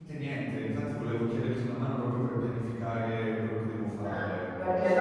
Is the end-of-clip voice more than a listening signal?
Yes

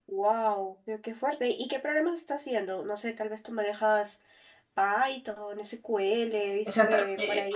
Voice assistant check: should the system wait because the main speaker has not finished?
No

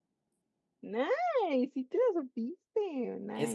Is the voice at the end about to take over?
Yes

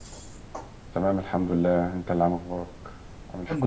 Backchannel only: No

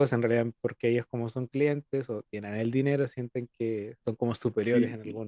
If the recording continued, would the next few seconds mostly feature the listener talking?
Yes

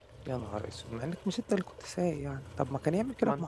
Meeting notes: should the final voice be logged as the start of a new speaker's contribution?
No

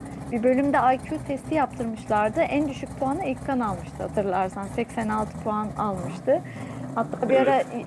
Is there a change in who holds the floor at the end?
No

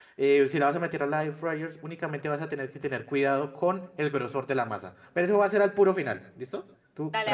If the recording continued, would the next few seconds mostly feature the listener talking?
No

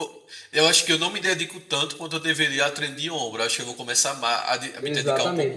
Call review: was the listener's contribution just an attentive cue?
No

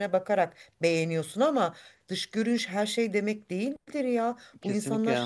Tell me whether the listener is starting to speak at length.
Yes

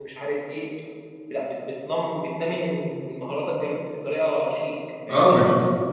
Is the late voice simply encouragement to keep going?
No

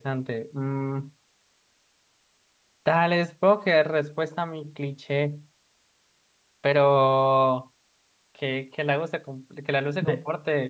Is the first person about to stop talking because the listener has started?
No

